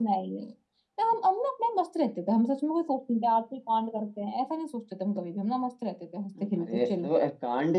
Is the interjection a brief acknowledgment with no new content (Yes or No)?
No